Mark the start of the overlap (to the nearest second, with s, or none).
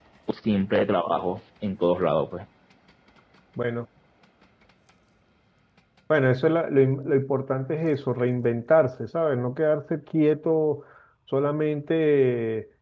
none